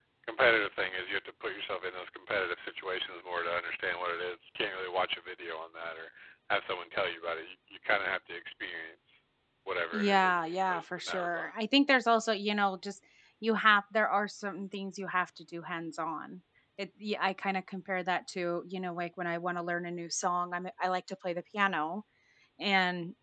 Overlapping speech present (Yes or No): Yes